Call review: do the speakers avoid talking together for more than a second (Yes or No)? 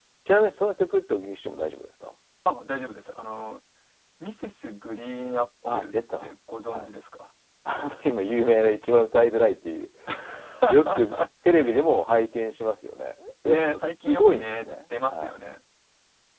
No